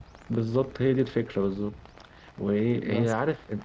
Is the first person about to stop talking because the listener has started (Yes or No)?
No